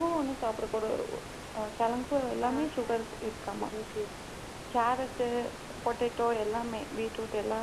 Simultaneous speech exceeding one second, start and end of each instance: 2.5-3.7

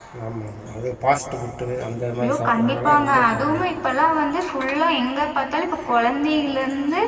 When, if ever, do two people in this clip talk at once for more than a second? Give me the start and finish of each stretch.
2.2-3.7

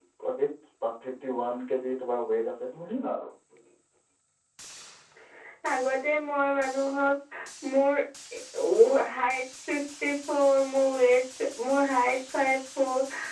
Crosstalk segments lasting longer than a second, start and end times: none

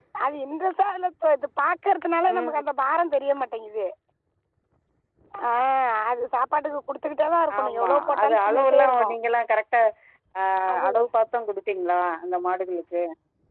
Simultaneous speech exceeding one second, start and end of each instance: 7.6-9.1

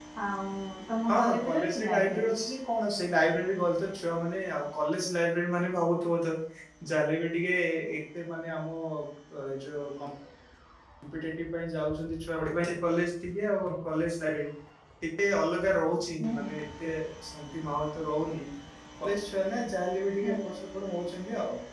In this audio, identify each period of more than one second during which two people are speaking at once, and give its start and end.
1.1-2.3

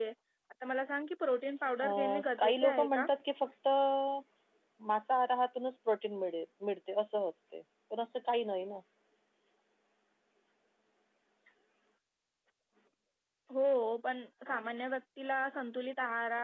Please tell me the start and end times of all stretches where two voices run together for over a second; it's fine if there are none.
1.8-3.1

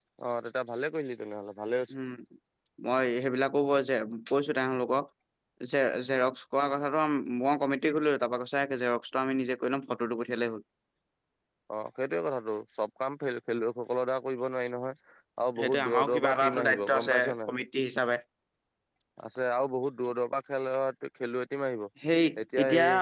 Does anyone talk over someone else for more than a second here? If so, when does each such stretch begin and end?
15.6-17.5

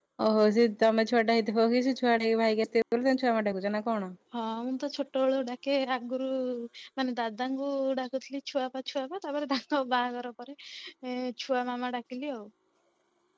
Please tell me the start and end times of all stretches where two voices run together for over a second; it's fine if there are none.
none

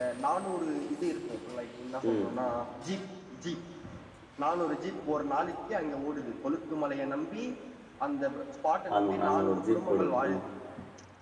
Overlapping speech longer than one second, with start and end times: 9.0-10.3

